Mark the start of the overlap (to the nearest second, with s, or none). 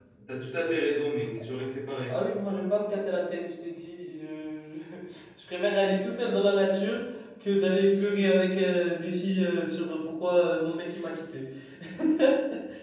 none